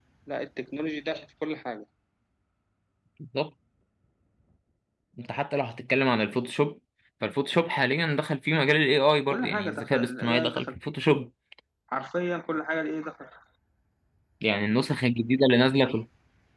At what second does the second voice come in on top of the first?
9.3 s

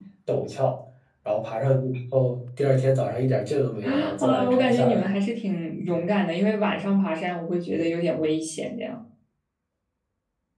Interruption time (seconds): 3.8 s

